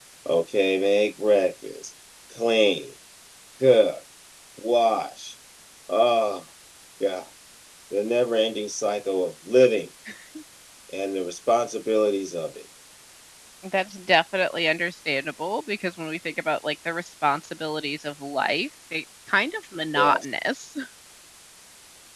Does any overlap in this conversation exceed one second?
No

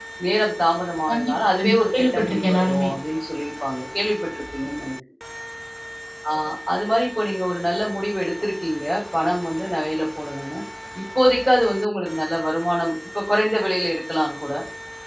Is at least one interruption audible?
Yes, from 1.1 s

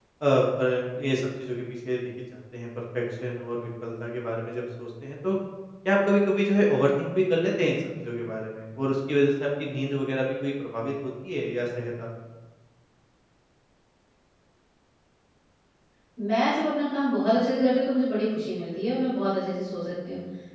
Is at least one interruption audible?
No

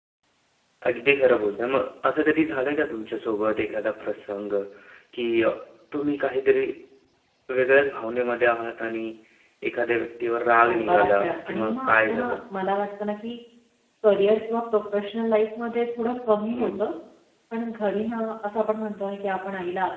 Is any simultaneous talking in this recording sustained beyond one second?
Yes, from 10.7 s

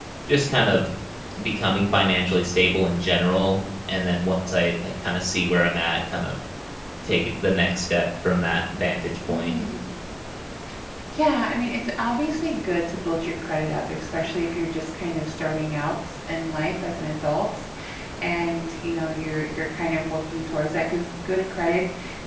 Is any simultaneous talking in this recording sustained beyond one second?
No

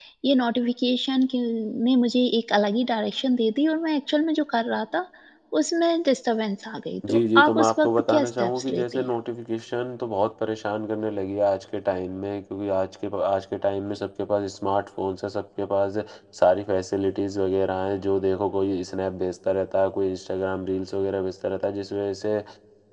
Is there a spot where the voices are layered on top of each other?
Yes, from 7.0 s

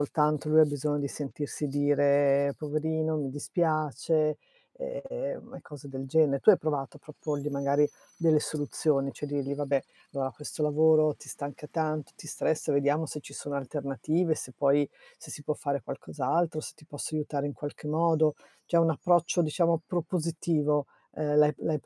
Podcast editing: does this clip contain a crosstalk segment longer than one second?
No

